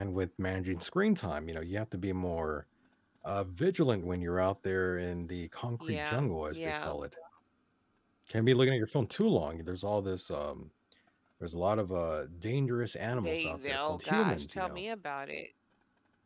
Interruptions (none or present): present